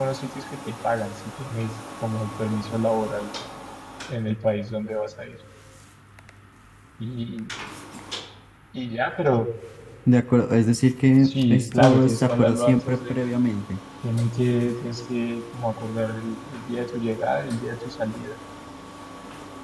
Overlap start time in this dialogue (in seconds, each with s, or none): 11.2 s